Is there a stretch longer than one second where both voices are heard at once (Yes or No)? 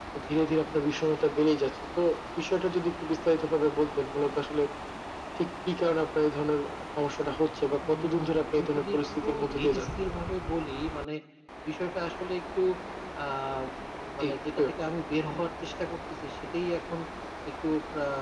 Yes